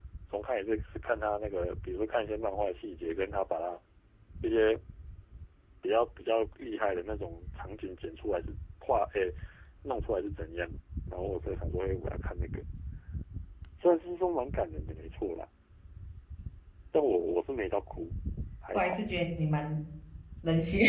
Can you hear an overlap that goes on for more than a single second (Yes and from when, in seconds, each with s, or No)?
No